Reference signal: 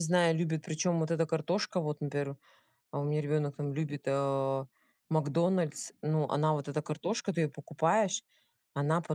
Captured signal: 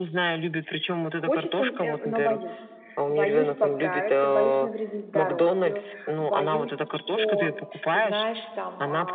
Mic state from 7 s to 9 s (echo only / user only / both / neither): both